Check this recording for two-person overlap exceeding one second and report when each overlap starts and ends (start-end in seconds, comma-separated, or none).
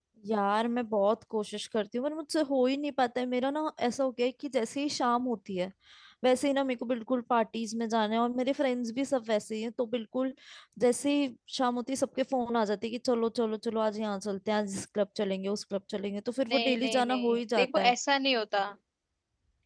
16.5-17.9